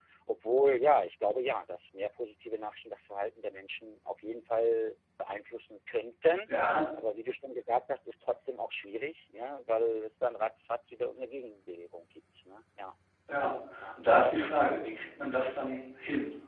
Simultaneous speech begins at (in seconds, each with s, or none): none